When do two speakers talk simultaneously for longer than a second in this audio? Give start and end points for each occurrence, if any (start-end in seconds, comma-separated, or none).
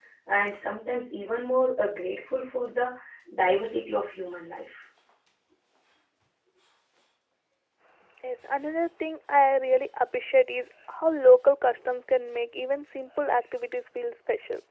none